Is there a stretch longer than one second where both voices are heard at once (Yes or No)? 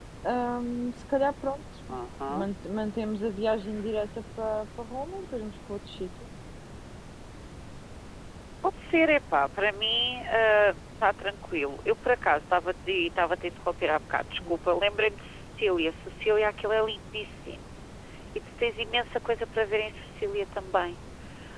No